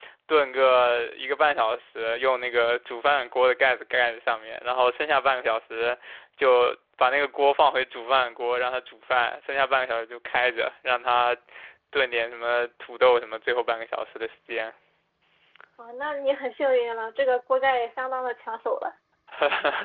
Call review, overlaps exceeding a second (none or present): none